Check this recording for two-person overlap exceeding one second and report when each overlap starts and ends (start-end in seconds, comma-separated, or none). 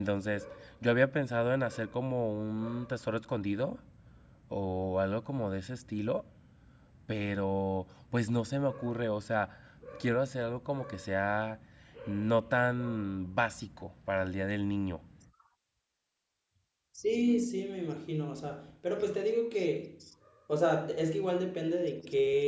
none